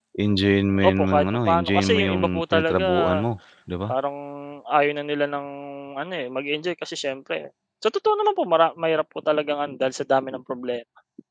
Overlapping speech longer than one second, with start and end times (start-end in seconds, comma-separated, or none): 0.8-3.2